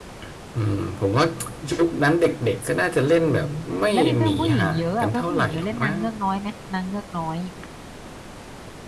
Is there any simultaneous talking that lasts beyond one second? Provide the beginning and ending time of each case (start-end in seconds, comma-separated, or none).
3.9-6.0